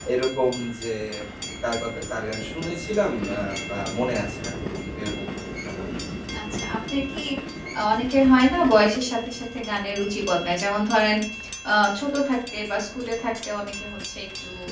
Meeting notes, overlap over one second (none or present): none